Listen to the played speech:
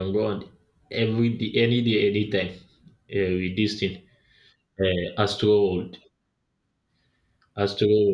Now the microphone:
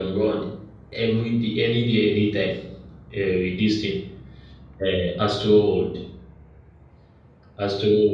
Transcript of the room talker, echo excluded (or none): none